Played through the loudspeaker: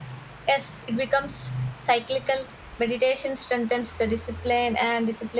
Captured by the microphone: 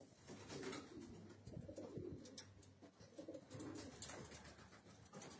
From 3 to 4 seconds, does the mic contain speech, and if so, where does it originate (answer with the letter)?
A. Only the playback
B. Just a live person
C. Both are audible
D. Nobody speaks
D